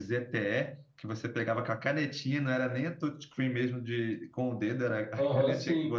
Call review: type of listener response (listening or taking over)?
taking over